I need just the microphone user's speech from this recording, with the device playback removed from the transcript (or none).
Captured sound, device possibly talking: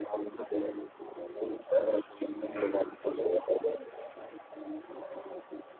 Mm.